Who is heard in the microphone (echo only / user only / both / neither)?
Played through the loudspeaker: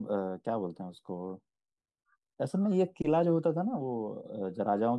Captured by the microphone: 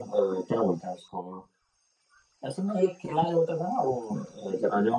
echo only